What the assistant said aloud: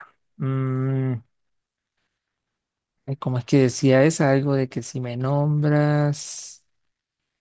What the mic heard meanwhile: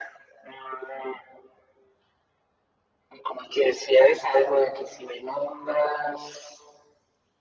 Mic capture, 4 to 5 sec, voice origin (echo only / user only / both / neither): echo only